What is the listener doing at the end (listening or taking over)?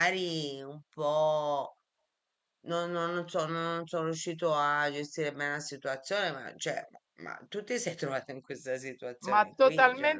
taking over